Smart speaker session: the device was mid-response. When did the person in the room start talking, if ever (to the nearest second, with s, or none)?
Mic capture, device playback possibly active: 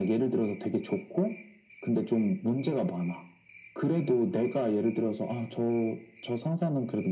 none